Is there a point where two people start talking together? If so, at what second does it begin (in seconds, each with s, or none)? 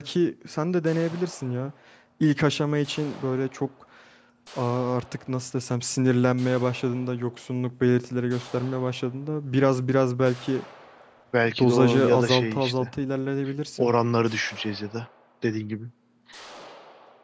11.6 s